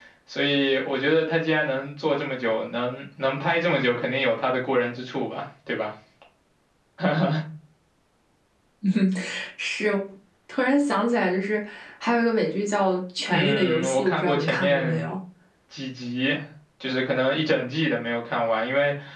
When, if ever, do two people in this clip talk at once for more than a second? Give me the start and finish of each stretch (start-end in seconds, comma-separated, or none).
13.3-15.1